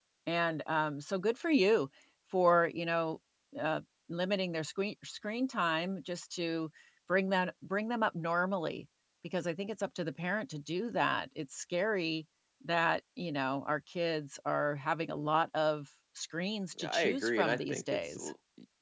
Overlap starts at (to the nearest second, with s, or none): 17 s